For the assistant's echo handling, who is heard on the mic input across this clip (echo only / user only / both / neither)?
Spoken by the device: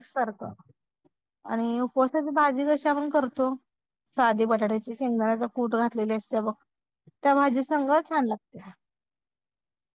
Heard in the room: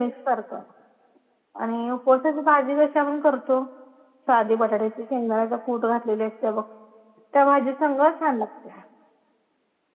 echo only